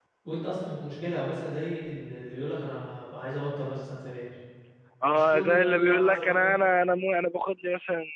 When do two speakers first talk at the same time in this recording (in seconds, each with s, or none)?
5.1 s